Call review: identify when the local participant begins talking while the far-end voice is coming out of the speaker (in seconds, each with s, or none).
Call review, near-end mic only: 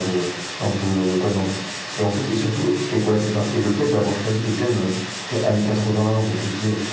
none